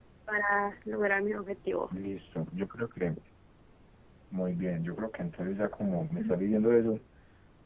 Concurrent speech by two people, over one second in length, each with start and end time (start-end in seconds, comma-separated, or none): none